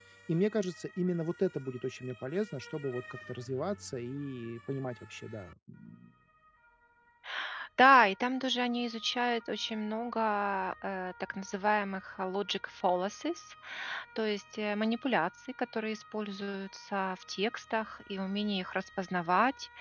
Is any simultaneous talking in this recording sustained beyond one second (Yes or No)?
No